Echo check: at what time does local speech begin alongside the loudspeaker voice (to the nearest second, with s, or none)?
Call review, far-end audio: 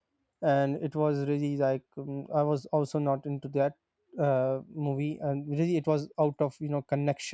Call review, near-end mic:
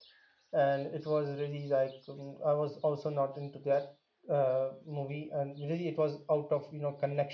none